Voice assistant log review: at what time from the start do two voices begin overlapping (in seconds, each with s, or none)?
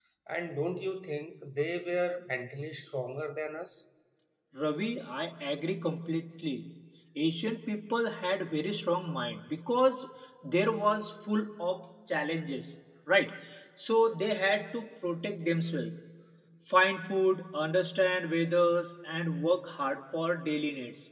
none